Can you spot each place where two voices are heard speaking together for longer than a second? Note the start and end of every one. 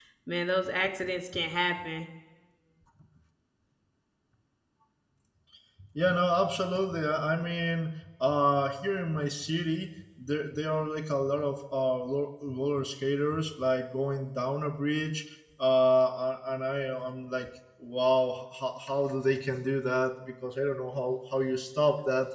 none

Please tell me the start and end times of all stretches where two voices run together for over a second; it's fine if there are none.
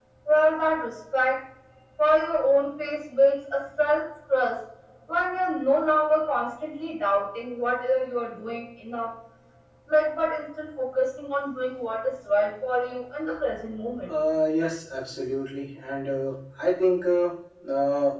none

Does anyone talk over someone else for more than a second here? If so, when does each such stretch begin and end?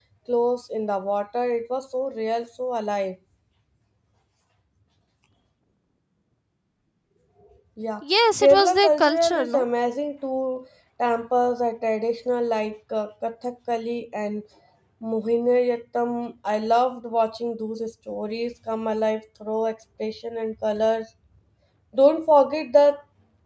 8.4-9.6

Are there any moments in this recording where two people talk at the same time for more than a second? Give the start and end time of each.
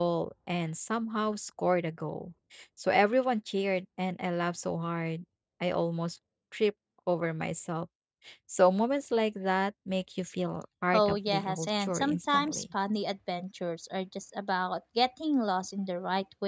10.9-12.6

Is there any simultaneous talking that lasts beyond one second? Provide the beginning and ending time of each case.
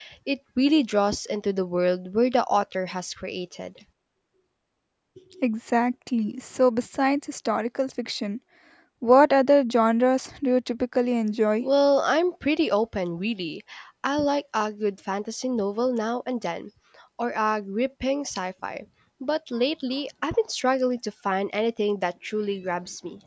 none

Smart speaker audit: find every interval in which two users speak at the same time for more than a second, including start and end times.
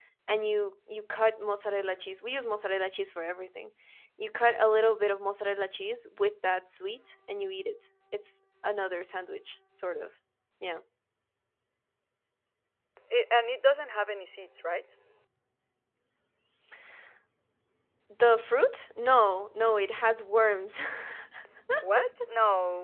none

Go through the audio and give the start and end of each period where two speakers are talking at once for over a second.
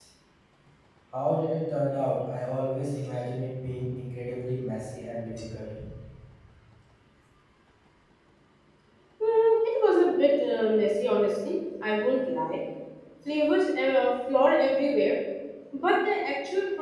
none

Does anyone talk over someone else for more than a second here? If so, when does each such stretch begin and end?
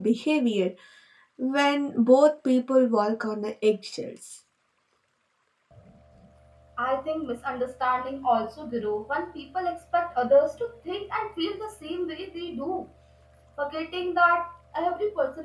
none

